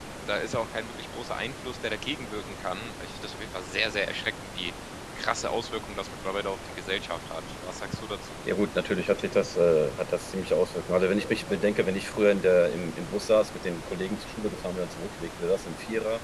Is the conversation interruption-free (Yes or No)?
Yes